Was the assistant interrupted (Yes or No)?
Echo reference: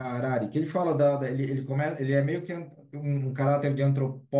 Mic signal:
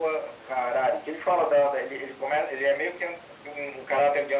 No